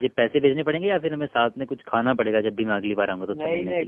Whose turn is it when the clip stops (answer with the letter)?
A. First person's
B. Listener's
B